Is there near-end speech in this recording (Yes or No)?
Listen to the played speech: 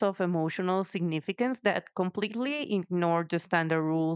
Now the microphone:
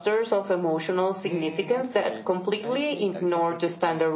Yes